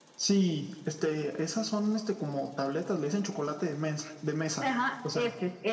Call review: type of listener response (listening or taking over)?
taking over